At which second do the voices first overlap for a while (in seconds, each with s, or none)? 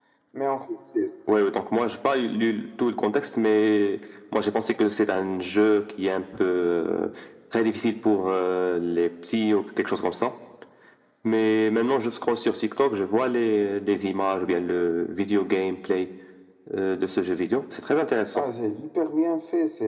none